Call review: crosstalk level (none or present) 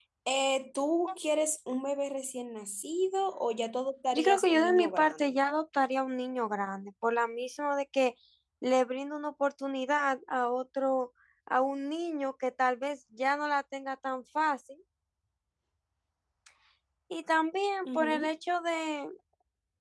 present